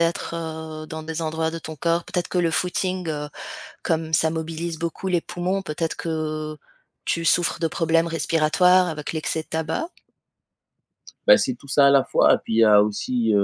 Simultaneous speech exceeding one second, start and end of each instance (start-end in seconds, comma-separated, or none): none